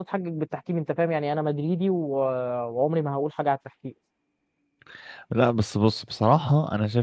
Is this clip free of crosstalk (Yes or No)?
Yes